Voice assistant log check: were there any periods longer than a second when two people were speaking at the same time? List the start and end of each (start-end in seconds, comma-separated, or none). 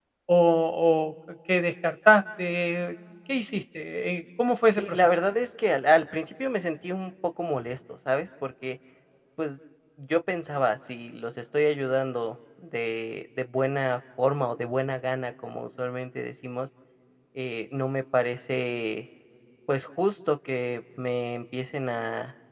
none